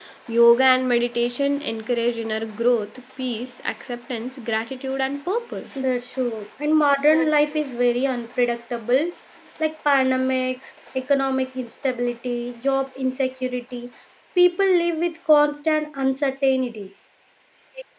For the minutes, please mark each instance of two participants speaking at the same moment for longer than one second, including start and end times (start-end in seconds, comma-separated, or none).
none